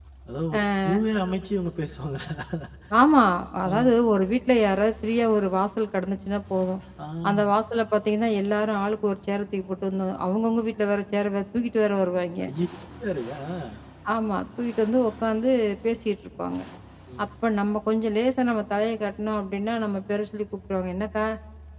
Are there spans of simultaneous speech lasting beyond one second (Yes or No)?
No